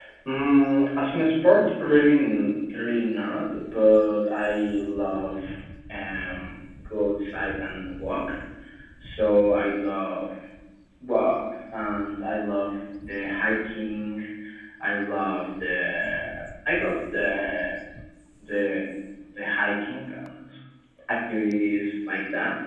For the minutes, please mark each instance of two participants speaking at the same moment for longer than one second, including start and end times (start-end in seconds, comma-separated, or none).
none